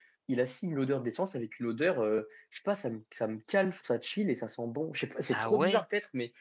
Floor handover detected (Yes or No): No